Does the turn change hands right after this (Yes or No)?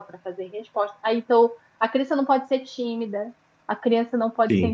No